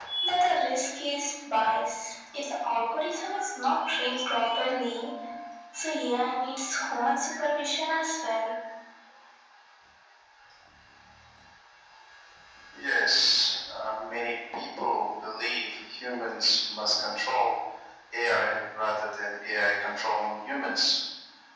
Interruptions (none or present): none